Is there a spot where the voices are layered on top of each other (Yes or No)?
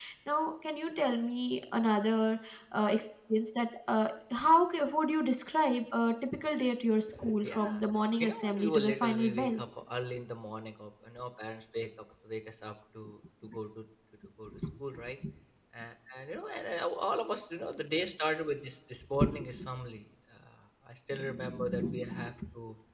Yes